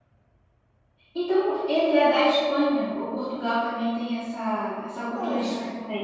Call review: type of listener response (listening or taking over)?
taking over